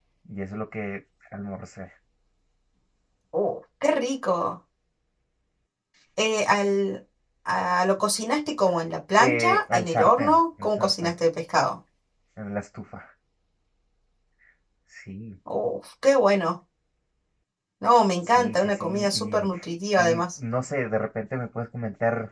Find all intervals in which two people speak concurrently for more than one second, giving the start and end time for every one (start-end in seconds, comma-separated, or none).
9.2-11.1, 18.2-19.5